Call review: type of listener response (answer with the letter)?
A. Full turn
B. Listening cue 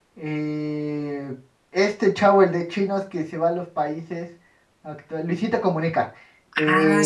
B